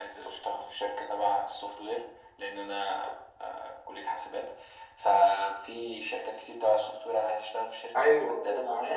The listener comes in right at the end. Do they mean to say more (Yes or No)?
Yes